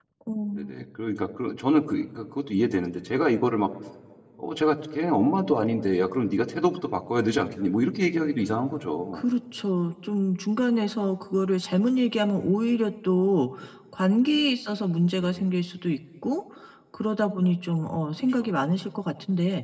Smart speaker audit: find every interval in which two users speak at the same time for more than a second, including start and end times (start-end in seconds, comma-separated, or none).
none